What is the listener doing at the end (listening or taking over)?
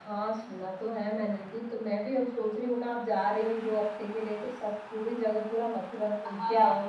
taking over